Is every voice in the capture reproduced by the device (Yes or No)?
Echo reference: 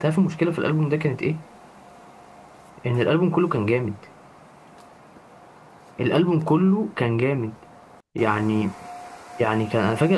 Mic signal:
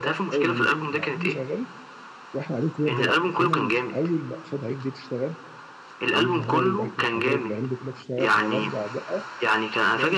No